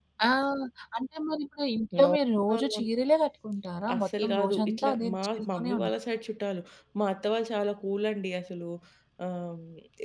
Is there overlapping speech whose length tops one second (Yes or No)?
Yes